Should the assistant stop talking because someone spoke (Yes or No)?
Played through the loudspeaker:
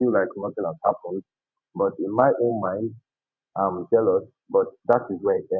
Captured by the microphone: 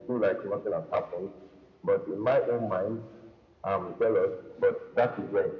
No